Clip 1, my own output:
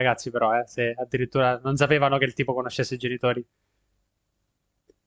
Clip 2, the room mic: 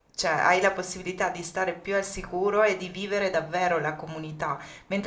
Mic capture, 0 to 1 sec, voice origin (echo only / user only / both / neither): user only